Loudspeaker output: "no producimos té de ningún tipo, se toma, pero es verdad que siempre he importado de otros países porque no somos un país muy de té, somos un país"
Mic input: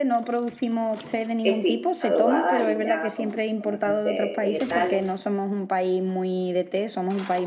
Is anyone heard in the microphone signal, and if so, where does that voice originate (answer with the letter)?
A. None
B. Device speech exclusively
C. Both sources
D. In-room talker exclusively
C